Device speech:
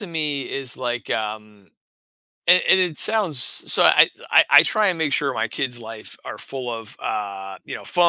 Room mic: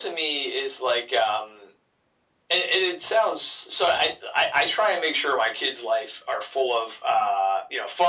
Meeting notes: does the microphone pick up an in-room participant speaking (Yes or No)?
No